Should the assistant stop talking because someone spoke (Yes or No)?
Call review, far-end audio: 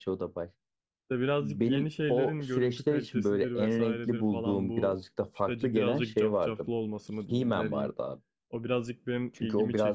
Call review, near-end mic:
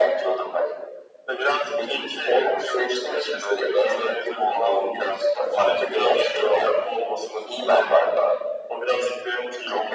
No